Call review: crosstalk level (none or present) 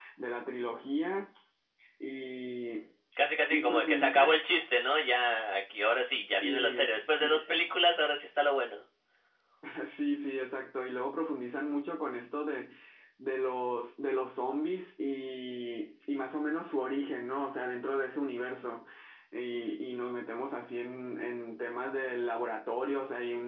present